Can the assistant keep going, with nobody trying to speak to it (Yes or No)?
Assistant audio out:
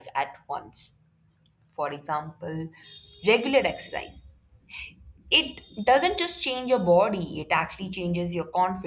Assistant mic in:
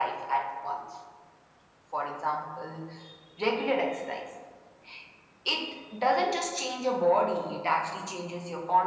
Yes